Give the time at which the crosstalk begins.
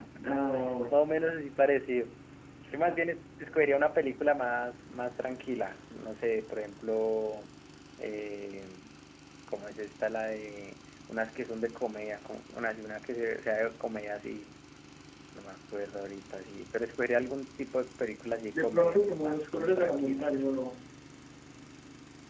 18.5 s

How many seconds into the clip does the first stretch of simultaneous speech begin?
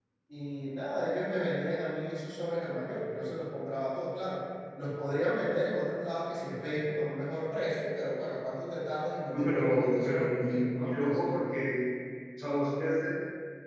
9.3 s

